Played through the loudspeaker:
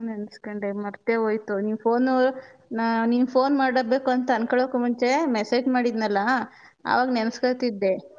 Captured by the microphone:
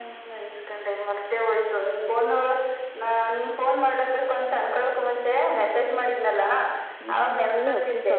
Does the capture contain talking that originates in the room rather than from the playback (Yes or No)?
Yes